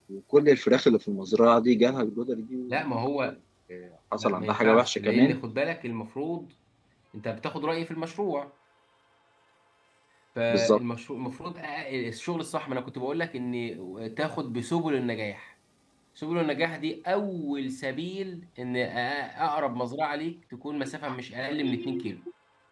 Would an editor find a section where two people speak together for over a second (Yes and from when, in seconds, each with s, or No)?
Yes, from 4.2 s